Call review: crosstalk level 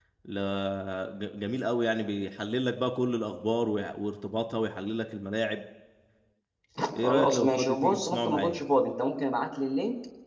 present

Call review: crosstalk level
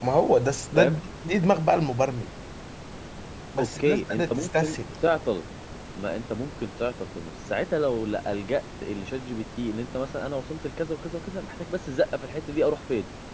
present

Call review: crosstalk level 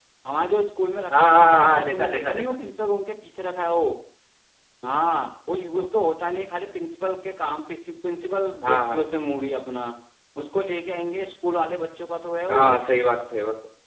present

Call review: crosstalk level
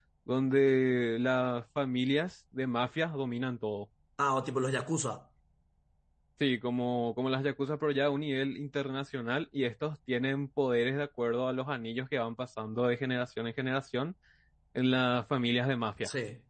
none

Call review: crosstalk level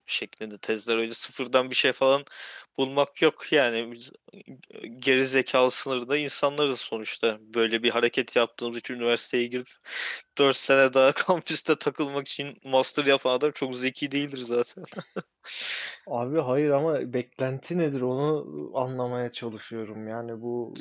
none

